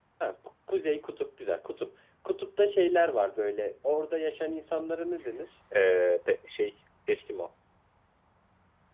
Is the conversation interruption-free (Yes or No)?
Yes